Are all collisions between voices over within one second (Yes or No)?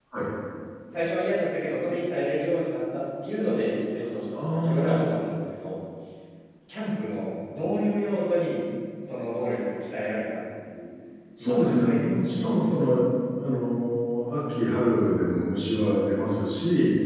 No